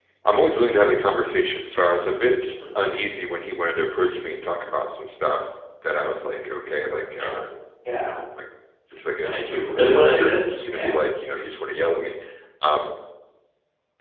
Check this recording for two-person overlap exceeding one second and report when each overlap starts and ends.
9.2-11.0

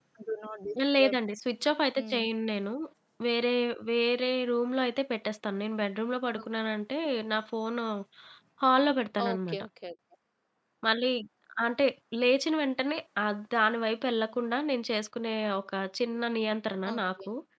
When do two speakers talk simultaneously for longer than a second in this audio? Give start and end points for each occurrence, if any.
none

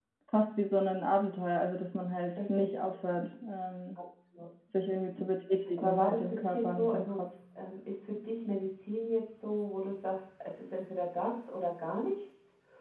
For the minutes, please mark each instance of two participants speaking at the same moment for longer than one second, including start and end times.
5.8-7.2

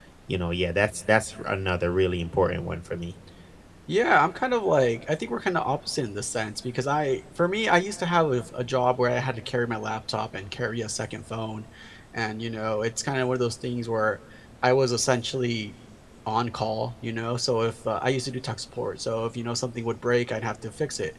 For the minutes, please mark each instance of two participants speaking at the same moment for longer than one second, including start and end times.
none

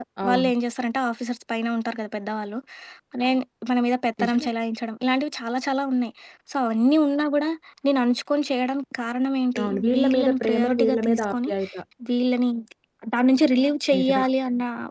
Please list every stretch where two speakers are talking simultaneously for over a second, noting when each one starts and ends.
9.6-11.5

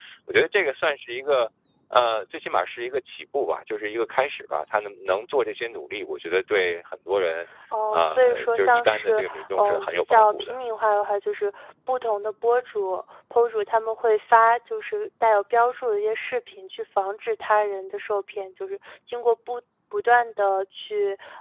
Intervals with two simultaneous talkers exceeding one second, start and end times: 7.9-10.5

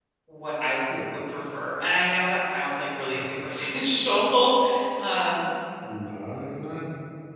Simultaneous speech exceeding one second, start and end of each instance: none

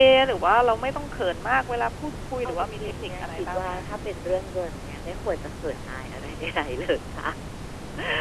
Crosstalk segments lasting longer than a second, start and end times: 2.5-3.8

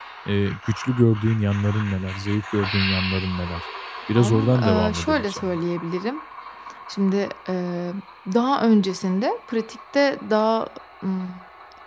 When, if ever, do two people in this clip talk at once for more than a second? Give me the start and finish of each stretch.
4.2-5.6

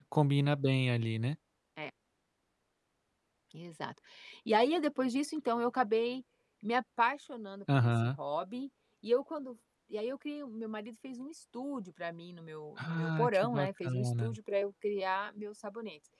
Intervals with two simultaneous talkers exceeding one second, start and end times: 12.8-14.4

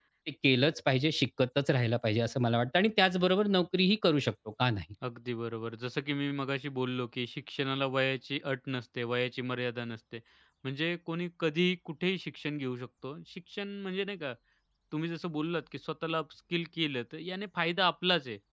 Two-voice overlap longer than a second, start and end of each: none

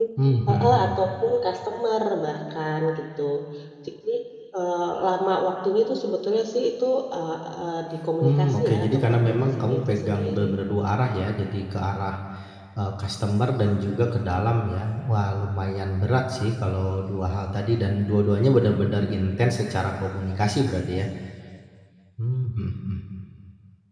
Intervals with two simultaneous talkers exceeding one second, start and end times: 8.2-10.5

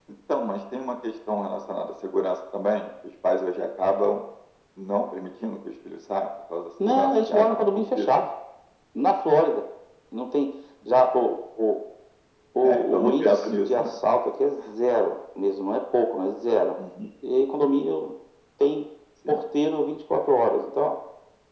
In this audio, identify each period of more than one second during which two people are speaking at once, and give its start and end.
6.8-8.1, 12.6-13.9

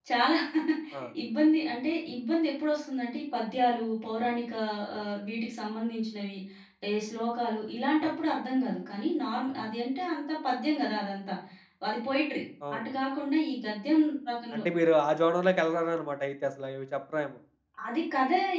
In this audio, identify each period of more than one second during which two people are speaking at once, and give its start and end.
none

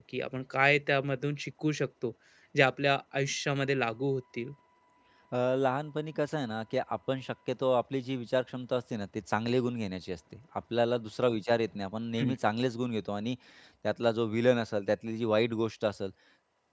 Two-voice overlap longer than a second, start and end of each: none

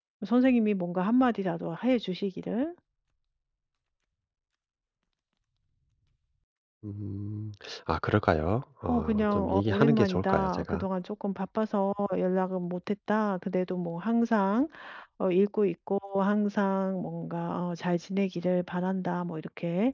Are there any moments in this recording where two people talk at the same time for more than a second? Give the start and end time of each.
8.9-10.8

